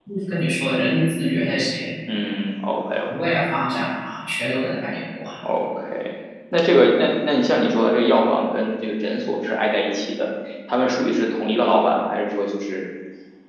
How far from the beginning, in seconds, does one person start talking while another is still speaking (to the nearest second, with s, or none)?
none